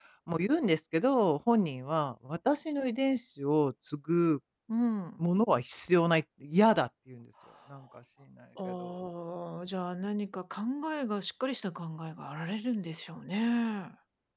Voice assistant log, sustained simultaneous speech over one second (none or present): none